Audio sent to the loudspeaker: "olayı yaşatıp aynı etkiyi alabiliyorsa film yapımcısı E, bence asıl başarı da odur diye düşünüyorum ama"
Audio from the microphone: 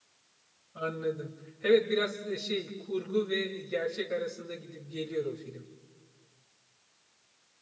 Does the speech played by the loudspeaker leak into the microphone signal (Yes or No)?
No